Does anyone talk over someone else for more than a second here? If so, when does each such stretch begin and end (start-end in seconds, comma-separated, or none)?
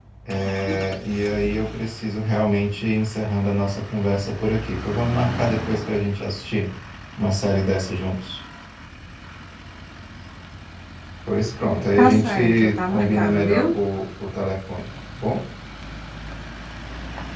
12.0-13.7